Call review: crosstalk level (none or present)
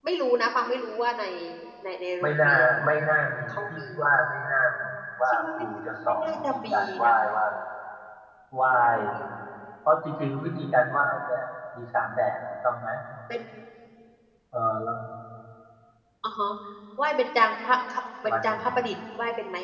present